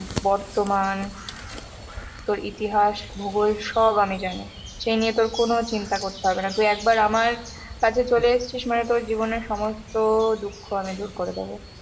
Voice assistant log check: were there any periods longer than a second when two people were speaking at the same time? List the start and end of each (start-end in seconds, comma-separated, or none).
none